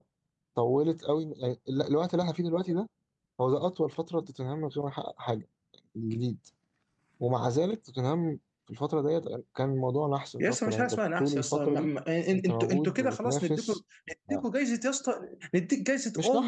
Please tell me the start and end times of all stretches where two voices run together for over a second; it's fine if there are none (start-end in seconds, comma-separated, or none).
10.4-11.9, 12.3-13.7